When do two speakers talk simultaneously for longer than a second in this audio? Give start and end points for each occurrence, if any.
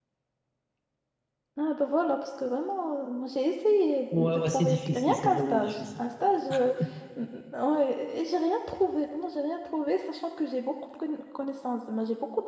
4.2-6.0

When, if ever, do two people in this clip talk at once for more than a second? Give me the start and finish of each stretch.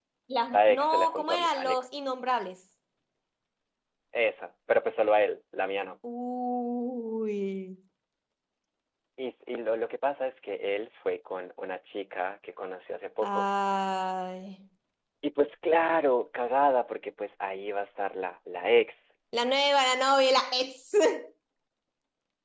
0.5-1.9

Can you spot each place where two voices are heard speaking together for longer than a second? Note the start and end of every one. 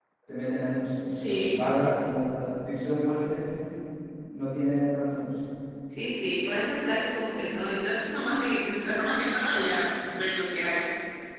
none

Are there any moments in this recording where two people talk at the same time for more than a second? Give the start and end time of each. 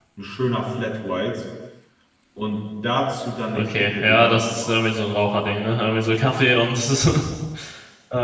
3.5-4.8

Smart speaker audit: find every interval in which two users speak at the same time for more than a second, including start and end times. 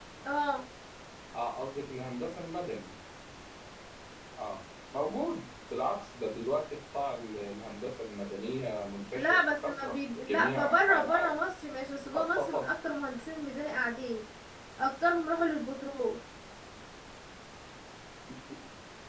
9.1-11.3

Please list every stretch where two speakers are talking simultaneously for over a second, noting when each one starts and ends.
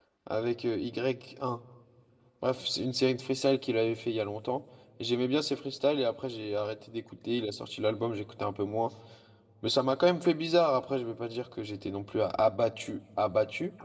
none

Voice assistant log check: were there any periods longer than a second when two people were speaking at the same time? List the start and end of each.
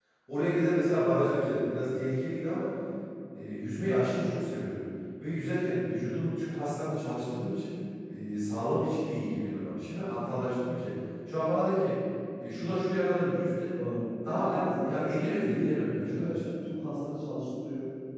14.2-16.5

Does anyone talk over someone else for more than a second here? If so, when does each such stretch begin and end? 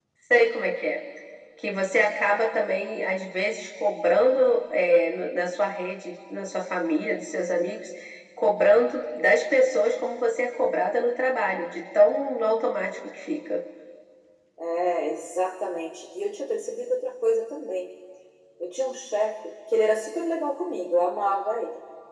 none

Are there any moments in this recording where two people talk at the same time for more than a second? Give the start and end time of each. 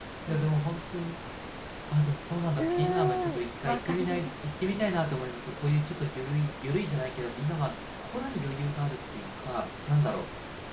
2.6-4.5

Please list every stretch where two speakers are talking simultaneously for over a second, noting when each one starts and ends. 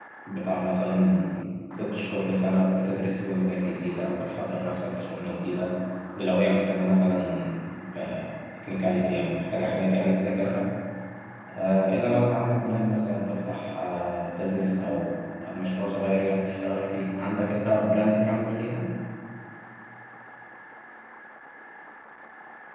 none

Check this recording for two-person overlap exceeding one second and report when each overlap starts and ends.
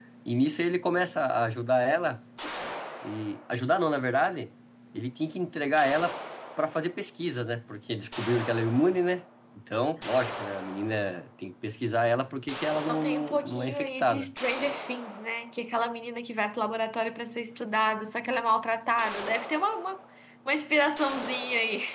12.9-14.3

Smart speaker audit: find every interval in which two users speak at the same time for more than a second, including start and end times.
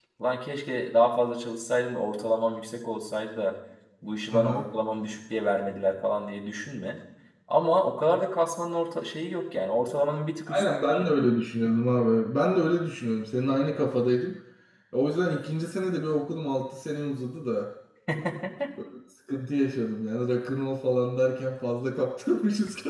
none

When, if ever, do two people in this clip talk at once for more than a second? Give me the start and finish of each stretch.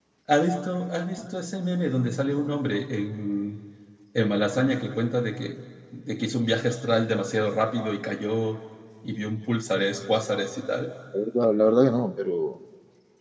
none

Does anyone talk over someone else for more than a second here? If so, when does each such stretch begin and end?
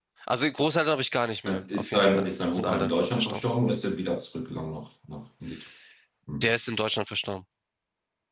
1.5-3.4

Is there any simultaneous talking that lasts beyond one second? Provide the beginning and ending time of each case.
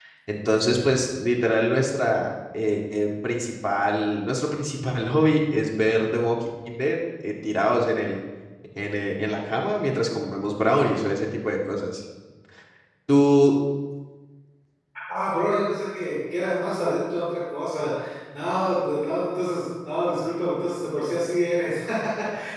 none

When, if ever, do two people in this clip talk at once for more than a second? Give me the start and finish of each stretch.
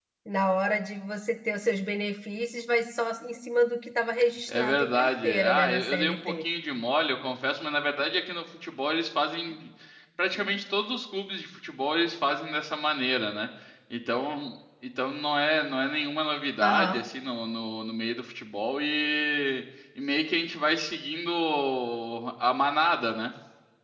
4.5-6.4

